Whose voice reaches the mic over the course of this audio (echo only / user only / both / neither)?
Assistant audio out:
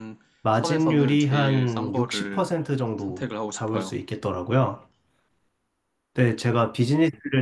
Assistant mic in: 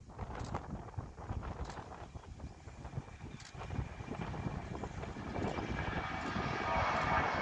neither